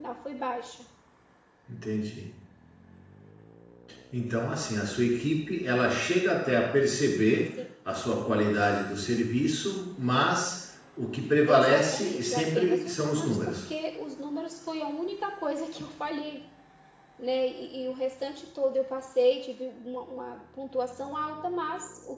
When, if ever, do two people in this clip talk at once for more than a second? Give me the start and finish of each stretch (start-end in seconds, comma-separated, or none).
11.5-13.6